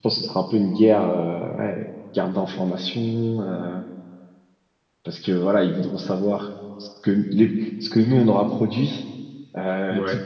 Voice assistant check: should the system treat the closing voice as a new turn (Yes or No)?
No